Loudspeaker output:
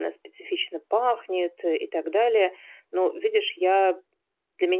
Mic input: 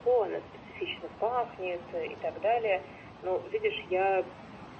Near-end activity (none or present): none